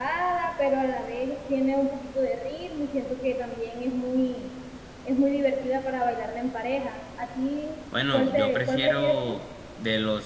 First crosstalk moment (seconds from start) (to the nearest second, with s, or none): 8 s